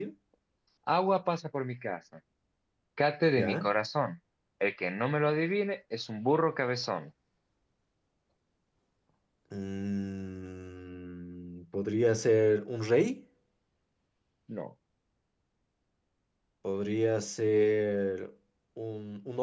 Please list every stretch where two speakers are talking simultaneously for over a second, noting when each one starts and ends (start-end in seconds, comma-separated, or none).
none